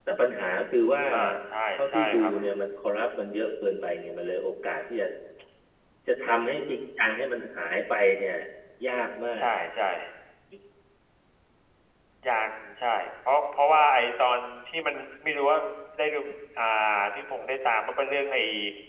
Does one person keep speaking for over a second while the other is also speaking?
No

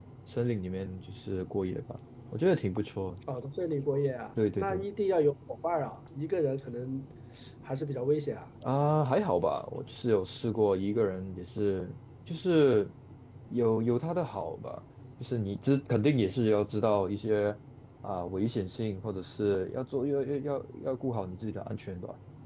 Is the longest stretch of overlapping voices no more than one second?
Yes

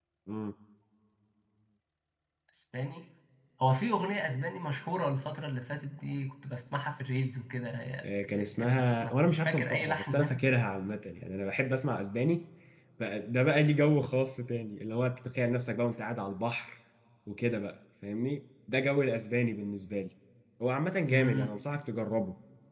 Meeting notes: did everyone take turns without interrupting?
No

